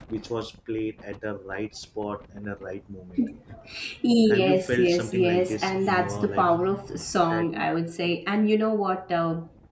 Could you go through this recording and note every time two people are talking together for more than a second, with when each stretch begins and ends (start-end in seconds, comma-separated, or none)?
4.3-6.5